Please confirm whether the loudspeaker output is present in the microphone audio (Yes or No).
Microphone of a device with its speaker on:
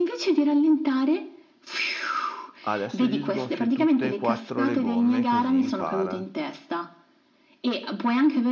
Yes